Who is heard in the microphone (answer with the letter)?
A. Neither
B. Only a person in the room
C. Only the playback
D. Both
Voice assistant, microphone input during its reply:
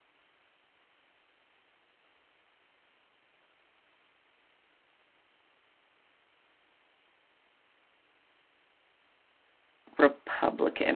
B